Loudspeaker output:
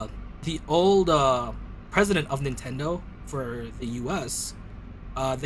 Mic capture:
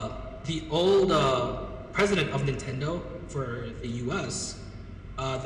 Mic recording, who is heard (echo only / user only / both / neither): echo only